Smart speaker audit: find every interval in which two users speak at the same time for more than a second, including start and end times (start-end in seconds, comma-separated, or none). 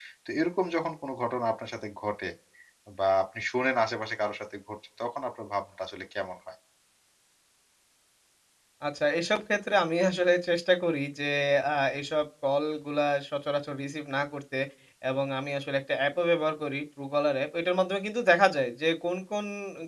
none